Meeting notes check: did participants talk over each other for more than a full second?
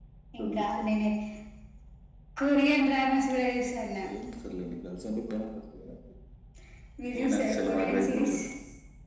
Yes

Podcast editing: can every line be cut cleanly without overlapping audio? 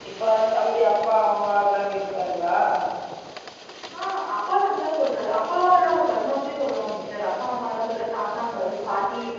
Yes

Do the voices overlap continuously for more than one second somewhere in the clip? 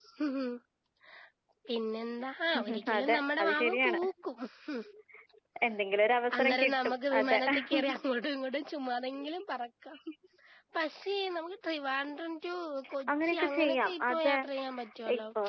Yes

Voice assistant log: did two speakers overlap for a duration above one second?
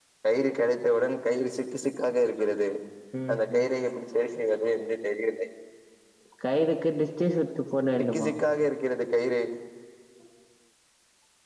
No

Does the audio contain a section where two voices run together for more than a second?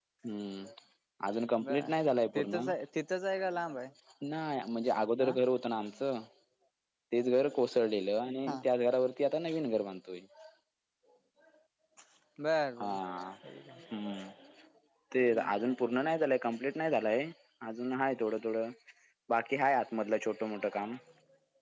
No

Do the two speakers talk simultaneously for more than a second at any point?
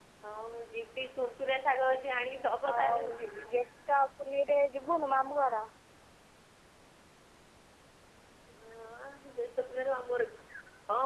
No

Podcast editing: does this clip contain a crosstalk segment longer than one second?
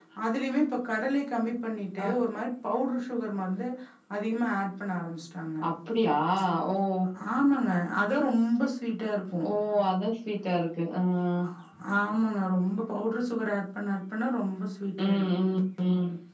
No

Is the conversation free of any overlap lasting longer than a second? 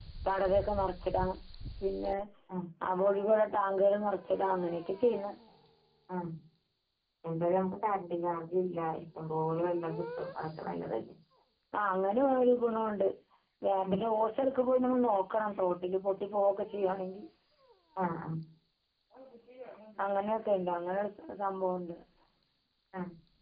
Yes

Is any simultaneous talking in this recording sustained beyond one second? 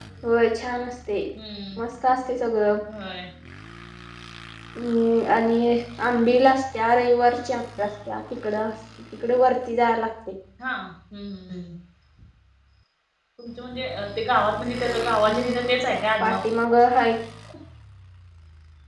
No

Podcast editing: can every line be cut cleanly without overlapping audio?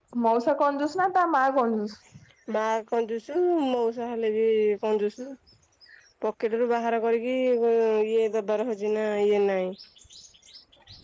Yes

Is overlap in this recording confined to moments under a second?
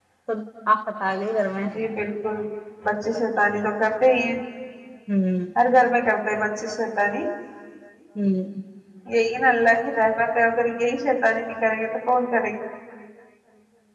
Yes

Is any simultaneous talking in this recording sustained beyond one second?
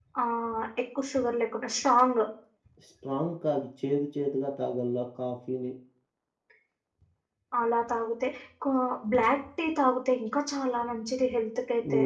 No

